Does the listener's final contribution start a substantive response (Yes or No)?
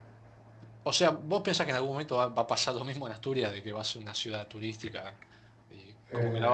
No